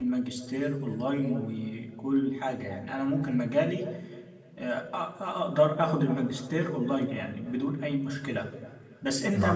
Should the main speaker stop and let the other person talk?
No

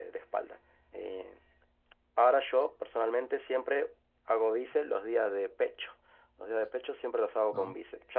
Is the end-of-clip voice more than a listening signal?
No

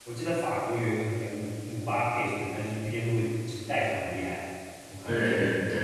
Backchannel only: No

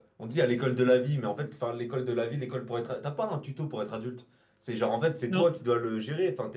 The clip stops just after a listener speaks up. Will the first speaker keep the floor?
Yes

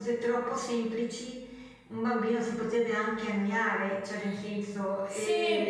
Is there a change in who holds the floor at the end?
No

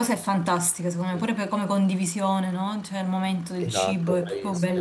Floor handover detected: Yes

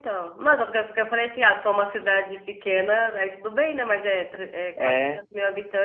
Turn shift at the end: No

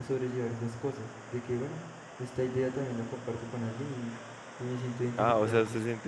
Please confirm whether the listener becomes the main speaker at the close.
Yes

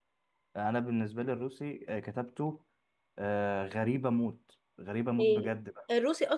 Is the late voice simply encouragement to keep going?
No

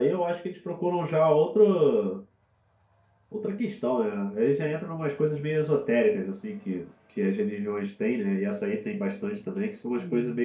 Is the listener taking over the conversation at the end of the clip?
No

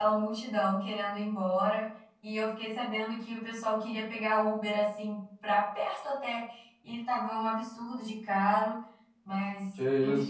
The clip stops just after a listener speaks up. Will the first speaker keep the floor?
Yes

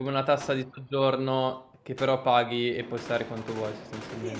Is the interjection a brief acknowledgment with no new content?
No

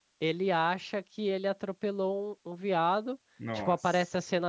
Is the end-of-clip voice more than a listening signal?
No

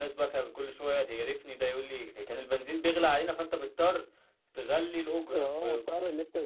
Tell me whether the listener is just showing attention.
No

